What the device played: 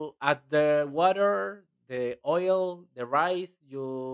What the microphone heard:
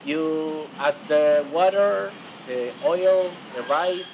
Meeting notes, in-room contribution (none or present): none